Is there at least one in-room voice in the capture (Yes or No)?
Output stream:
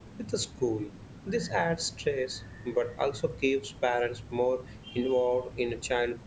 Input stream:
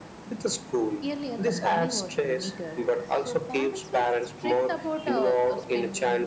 Yes